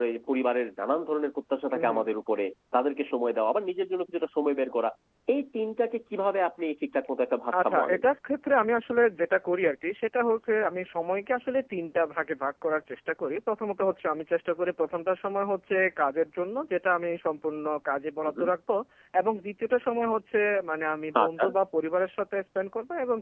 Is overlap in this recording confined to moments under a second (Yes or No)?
Yes